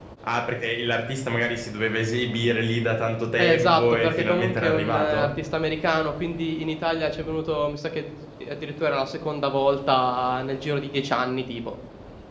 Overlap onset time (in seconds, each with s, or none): 3.4 s